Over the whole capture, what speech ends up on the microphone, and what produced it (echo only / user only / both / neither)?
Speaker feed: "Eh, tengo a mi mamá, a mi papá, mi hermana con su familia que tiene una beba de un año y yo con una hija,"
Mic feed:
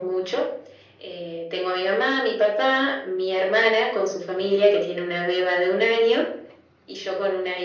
echo only